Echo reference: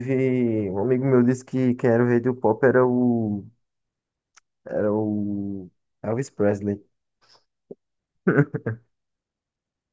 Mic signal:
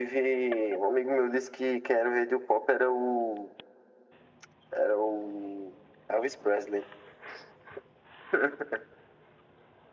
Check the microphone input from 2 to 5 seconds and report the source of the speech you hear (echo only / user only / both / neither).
echo only